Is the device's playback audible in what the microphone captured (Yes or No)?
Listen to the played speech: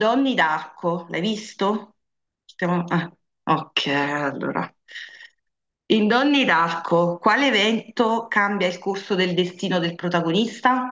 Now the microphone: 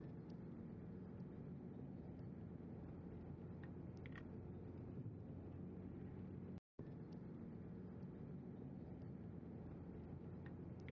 No